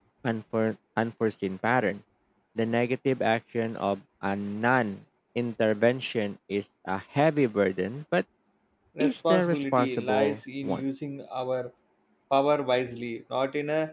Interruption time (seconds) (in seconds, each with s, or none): 9.0 s